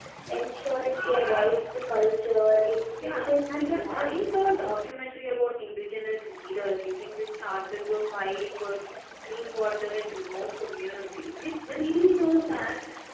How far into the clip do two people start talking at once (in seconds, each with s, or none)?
3.0 s